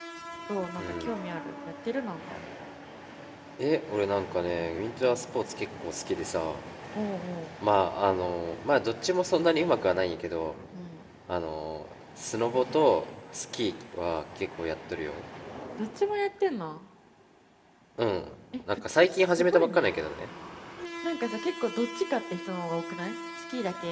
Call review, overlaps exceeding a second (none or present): present